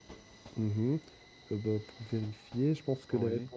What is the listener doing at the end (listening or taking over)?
listening